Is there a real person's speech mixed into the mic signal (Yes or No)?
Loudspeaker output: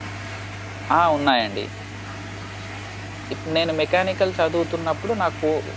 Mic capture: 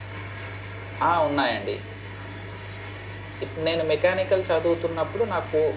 No